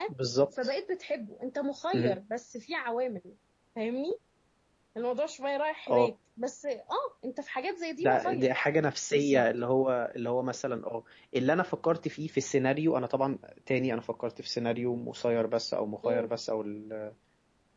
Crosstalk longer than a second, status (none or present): none